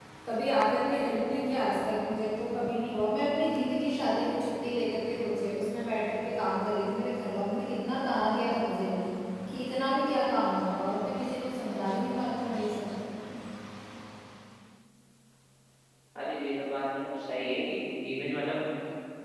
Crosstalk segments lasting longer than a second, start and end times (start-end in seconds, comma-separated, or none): none